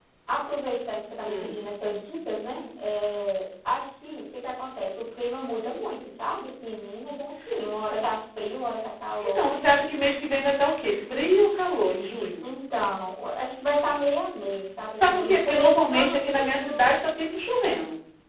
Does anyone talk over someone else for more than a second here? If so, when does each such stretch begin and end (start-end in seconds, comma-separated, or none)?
15.0-16.9